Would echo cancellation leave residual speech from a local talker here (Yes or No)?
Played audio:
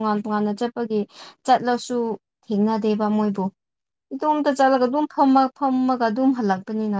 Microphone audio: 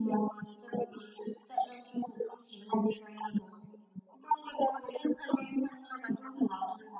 No